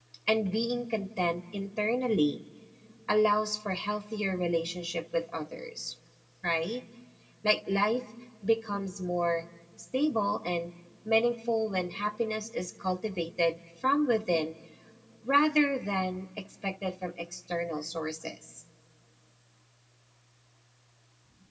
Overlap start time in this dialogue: none

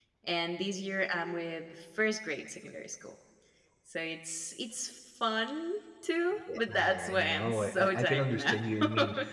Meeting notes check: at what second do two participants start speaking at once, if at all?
6.5 s

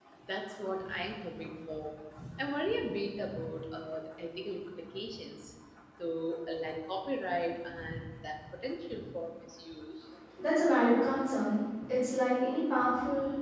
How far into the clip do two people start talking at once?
none

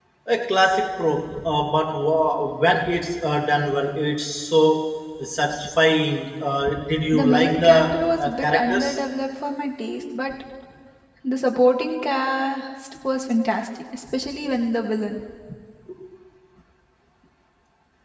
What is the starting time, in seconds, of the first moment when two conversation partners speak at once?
7.1 s

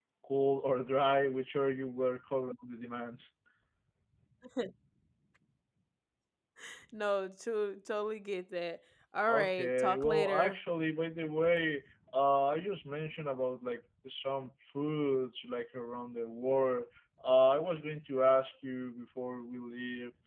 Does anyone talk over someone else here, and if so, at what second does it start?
9.3 s

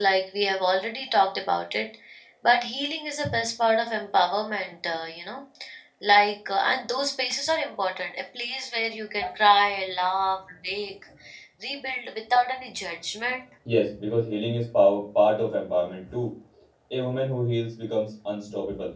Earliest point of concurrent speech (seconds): none

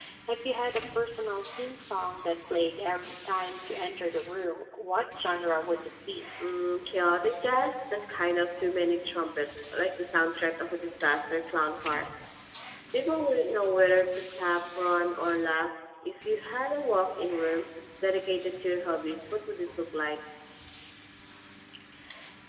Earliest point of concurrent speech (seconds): none

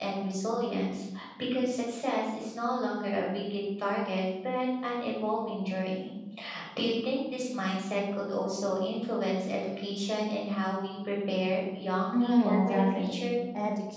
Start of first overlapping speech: 12.1 s

